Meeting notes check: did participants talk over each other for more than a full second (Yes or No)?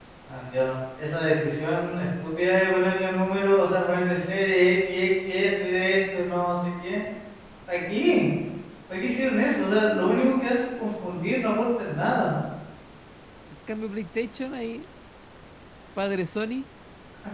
No